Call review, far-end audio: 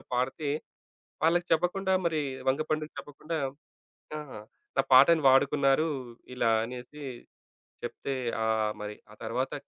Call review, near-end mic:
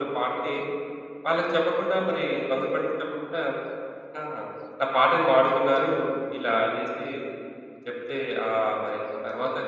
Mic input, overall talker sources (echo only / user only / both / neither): echo only